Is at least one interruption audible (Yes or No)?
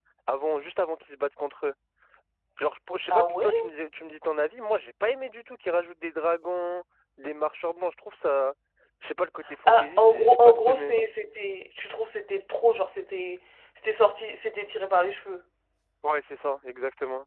Yes